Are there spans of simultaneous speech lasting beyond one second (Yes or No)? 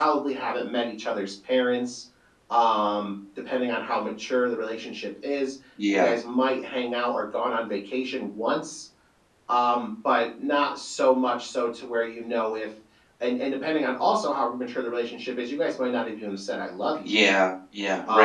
No